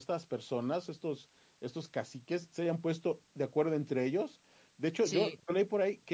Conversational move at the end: listening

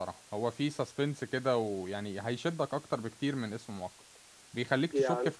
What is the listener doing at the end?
listening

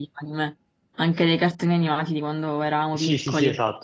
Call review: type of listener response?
taking over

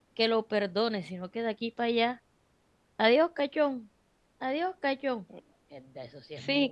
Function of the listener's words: taking over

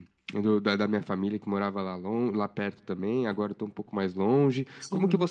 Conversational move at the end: listening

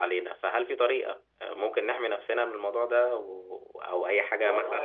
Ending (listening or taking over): taking over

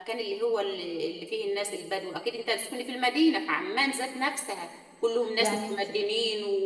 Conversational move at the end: listening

